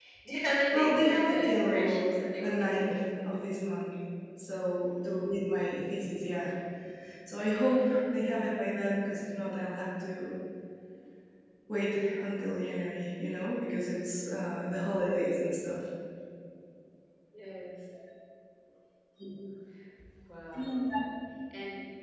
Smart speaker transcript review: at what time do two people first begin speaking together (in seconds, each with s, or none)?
0.7 s